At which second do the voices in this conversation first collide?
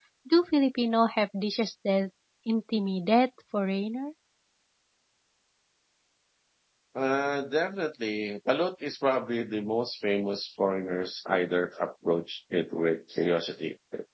none

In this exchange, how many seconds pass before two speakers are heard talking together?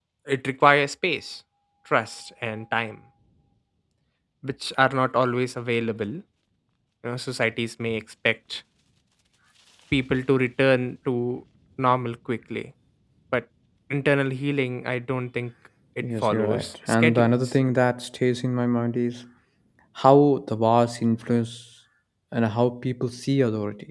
16.0 s

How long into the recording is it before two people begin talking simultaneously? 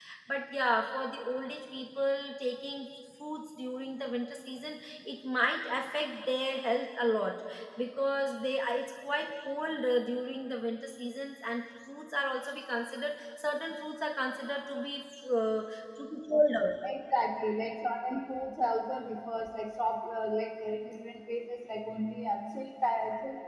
none

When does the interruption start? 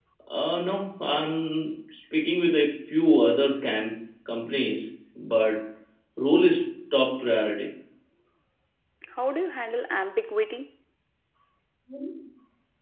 none

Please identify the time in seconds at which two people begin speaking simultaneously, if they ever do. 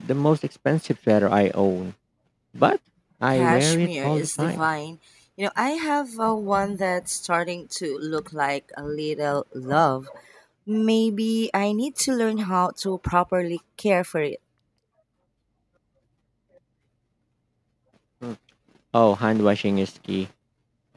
3.3 s

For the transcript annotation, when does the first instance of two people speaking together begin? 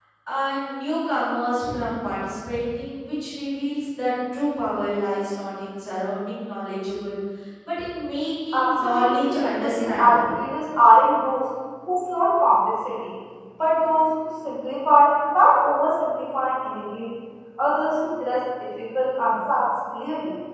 8.5 s

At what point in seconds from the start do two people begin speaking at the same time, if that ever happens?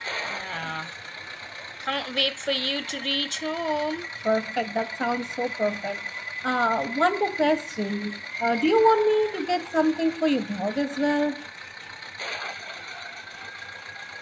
none

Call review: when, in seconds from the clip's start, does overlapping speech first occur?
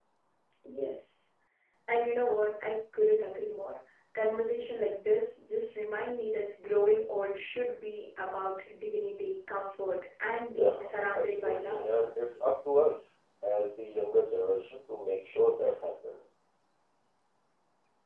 10.6 s

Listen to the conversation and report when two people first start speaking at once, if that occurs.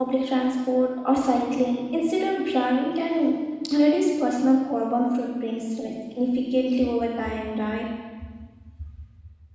none

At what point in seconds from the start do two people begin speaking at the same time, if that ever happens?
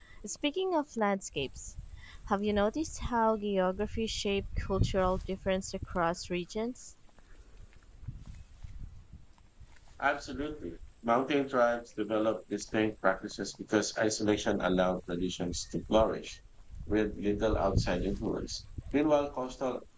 none

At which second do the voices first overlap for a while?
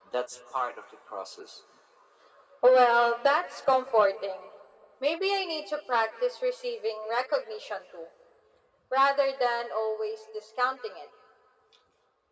none

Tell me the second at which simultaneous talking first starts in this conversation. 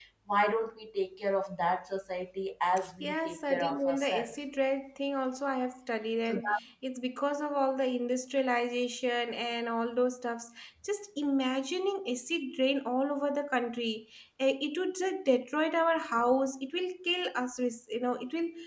3.0 s

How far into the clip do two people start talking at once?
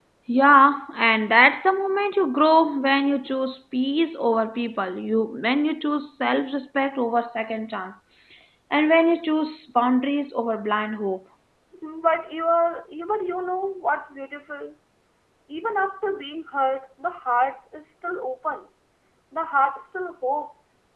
none

